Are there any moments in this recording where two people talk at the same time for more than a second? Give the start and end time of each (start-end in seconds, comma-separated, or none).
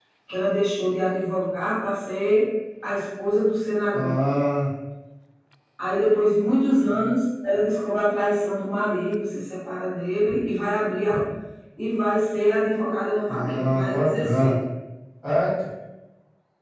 13.3-14.6